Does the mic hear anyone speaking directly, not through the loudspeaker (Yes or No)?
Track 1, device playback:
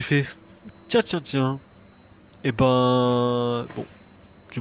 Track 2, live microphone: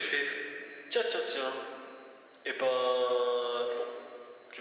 No